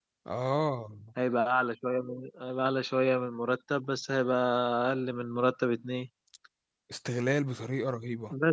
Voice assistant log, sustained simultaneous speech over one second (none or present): none